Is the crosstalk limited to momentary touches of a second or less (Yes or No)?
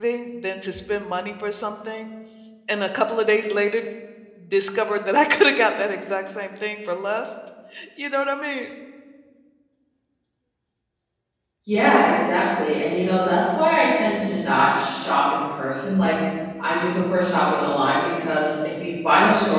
Yes